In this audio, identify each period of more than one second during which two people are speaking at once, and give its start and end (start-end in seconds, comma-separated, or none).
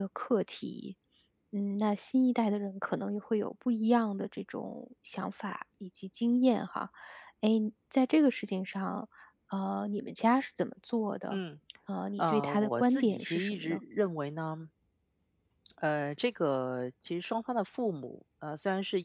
12.2-13.8